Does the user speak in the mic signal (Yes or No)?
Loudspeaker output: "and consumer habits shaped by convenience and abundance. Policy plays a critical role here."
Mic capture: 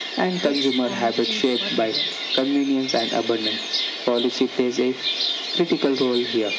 Yes